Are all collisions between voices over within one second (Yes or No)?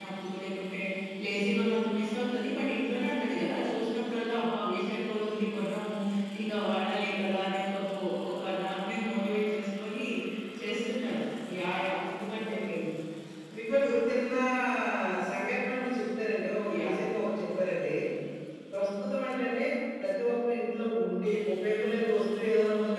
Yes